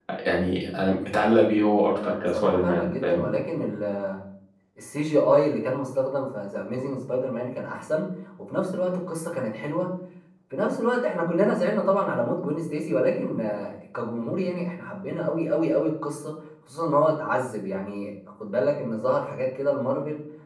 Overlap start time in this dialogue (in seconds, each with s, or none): 2.0 s